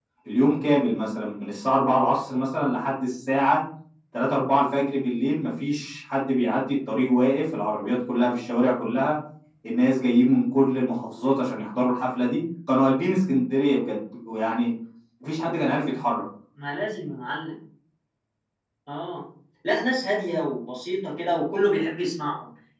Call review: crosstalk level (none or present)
none